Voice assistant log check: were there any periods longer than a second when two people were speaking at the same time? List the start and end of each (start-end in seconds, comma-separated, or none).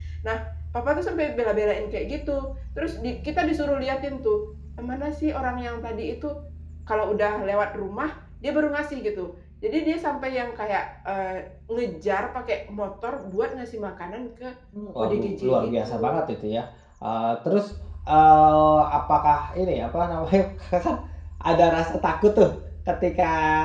15.0-16.2